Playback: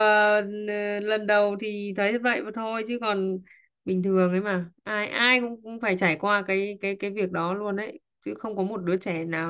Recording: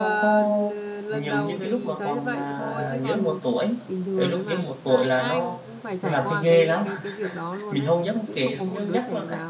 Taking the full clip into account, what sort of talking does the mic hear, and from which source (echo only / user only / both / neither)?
both